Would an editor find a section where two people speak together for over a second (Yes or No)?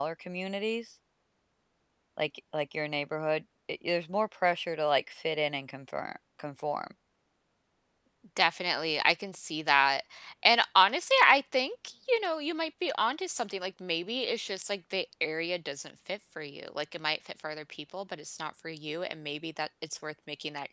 No